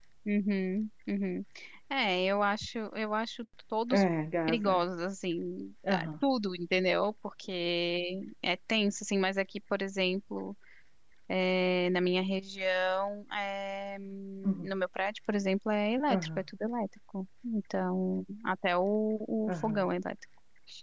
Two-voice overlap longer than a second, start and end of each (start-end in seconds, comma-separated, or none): none